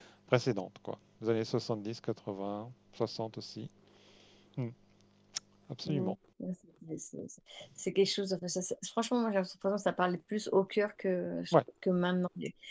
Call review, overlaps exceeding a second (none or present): none